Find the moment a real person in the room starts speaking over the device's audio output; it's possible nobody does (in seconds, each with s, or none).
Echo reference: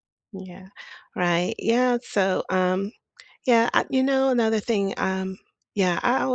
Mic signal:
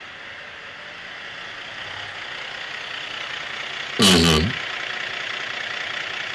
4.0 s